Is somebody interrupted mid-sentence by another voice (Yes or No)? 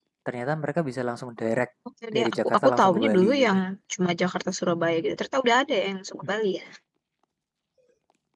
Yes